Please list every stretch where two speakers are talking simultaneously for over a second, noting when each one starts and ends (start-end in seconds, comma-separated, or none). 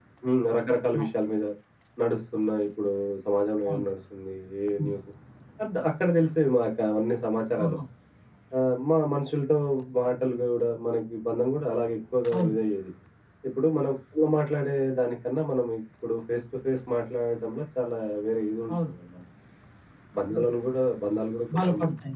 none